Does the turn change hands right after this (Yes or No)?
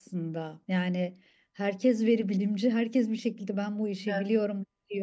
No